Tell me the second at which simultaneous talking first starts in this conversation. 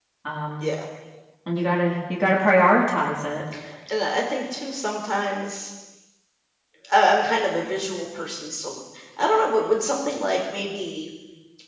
none

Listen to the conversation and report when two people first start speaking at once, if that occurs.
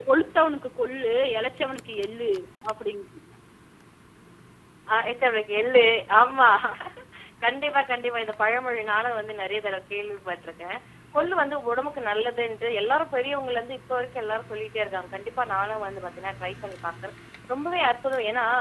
none

